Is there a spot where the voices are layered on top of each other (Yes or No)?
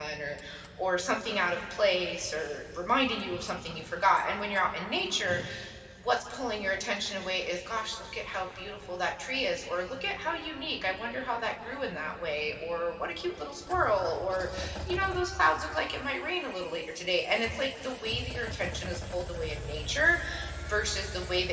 No